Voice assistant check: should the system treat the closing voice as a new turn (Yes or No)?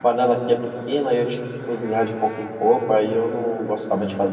Yes